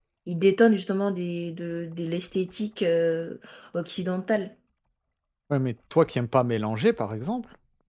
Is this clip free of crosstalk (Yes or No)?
Yes